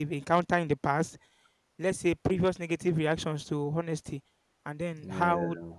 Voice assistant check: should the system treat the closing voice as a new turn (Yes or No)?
No